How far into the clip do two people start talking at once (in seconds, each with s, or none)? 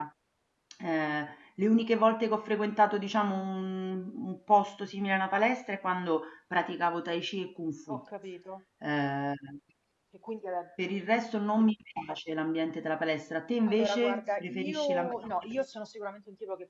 13.7 s